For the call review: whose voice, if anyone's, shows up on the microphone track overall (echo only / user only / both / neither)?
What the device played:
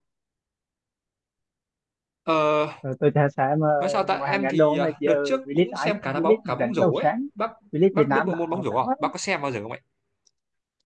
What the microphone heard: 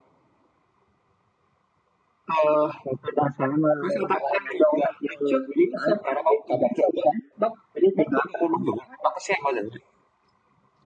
echo only